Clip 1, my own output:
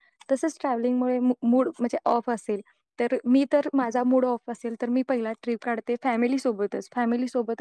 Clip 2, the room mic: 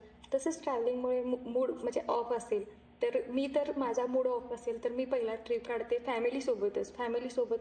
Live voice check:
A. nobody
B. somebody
A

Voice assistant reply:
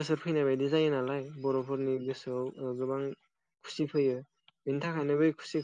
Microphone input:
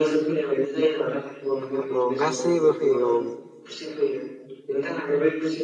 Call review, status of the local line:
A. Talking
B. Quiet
A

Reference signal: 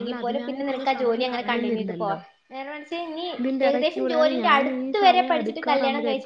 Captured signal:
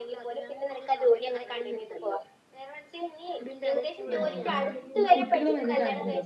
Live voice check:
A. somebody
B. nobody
A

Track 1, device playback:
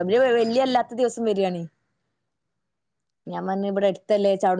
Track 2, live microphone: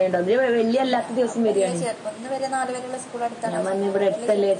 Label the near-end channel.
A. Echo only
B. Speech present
B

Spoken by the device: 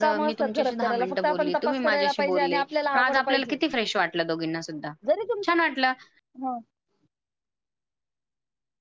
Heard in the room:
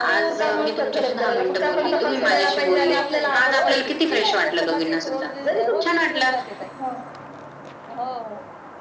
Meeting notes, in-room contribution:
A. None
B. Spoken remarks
B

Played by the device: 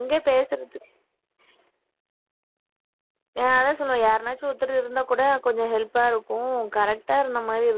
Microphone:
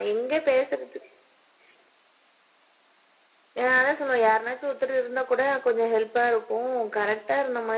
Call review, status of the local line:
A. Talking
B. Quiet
B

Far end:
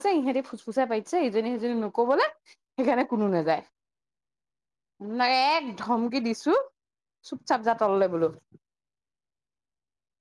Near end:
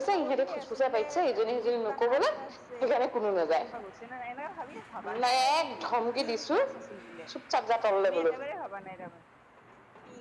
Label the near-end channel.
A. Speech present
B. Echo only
A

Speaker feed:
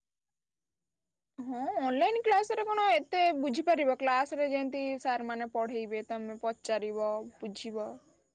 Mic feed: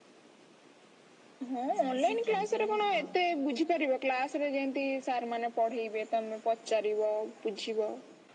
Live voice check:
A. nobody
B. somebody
B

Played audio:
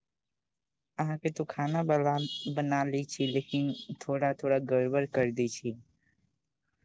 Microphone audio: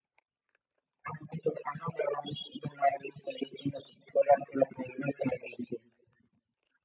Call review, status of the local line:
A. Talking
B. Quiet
B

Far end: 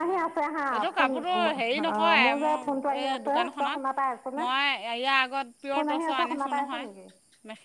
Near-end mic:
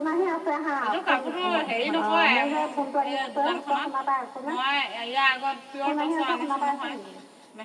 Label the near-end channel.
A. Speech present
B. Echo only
B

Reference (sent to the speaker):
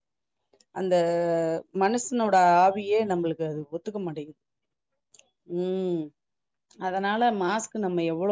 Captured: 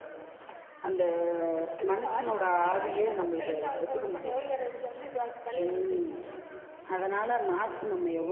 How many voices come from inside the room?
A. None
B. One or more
B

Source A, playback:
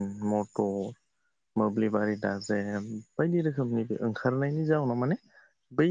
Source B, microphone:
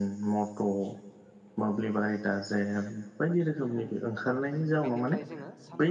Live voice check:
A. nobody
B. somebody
B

